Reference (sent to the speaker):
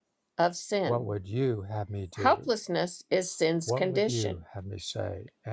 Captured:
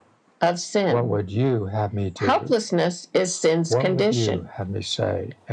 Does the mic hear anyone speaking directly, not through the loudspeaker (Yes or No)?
No